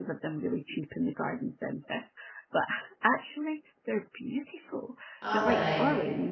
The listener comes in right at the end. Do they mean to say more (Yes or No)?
No